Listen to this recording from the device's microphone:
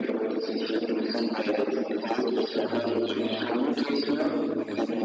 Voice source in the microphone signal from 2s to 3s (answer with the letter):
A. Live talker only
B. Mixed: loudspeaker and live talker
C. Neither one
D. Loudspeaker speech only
B